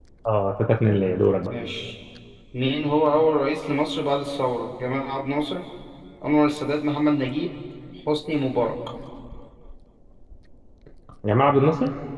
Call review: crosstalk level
none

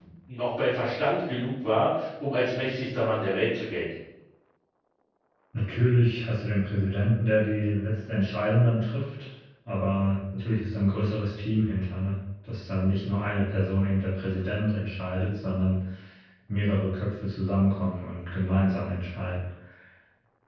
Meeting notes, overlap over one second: none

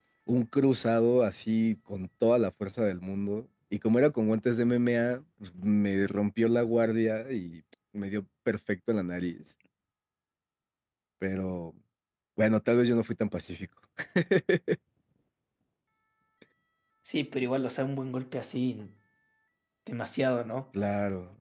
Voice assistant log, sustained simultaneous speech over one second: none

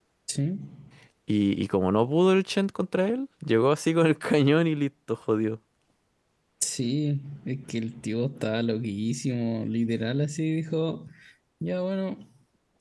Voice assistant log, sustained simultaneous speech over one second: none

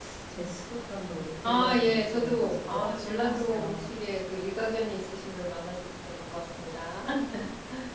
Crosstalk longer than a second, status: present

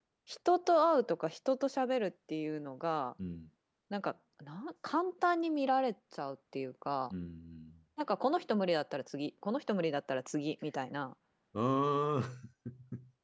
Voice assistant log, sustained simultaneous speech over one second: none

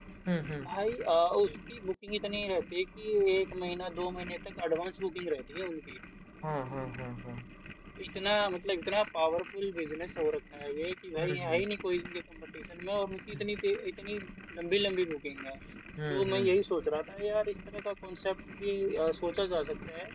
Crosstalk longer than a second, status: none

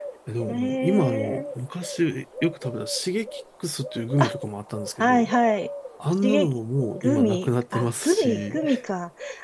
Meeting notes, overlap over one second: present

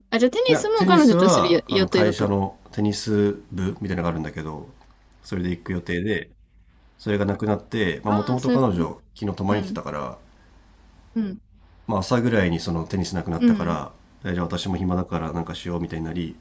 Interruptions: present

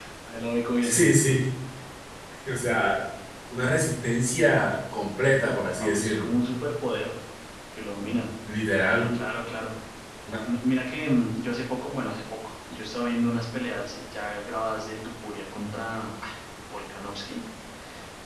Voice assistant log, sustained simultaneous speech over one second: none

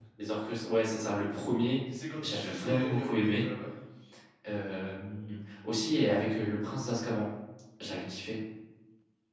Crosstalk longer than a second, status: present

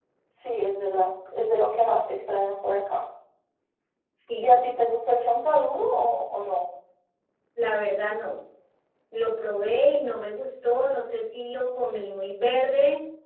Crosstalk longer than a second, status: none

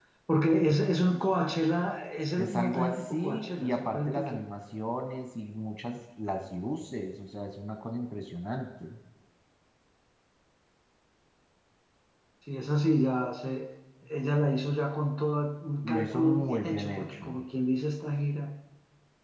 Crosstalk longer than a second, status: present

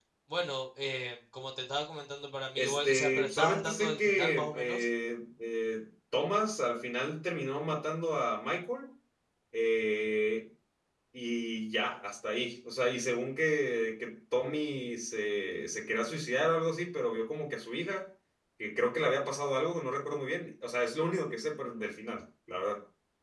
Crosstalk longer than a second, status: present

